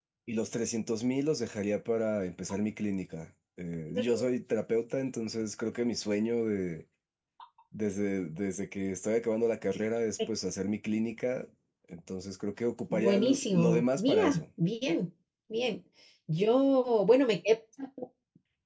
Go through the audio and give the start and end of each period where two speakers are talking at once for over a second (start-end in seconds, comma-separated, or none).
12.9-14.4